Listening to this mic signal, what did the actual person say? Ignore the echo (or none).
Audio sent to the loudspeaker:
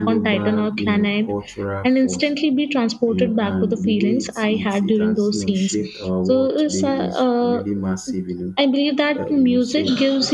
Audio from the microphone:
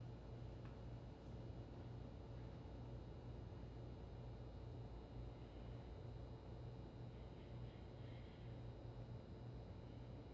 none